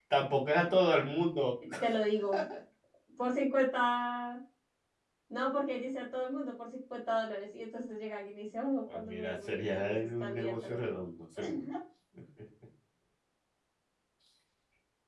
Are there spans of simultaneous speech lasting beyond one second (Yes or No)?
Yes